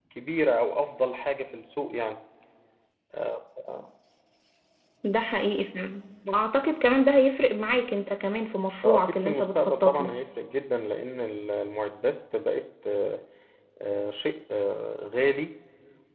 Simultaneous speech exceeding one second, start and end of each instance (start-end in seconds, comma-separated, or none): 8.8-10.1